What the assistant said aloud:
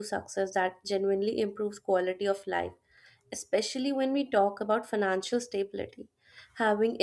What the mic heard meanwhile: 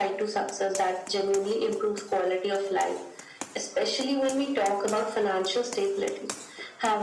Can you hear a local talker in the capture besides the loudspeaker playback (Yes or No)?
No